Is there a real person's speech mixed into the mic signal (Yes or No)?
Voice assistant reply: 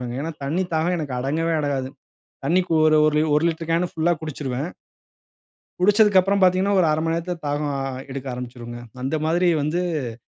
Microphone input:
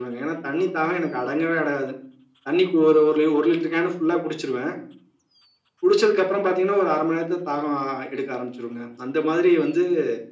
No